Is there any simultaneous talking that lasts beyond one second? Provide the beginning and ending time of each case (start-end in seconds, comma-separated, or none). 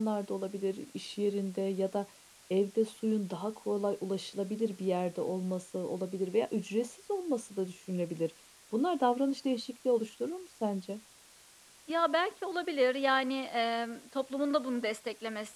none